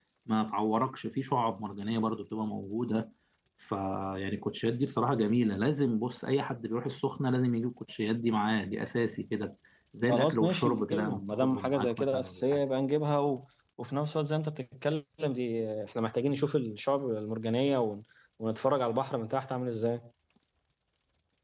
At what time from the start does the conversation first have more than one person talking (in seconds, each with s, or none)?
10.1 s